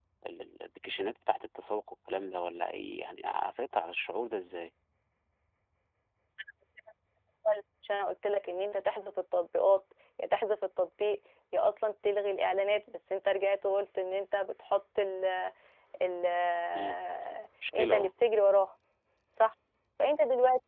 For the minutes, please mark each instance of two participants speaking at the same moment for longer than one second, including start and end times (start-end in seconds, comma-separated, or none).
none